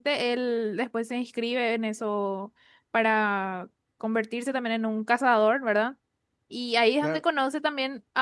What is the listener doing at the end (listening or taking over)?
listening